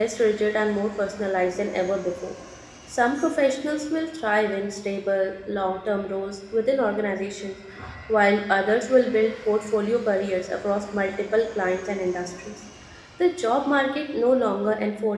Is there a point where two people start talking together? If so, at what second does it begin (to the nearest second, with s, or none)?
none